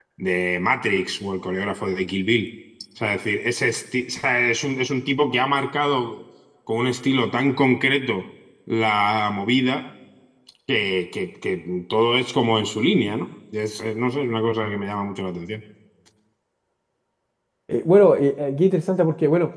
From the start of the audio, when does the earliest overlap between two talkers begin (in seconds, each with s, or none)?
none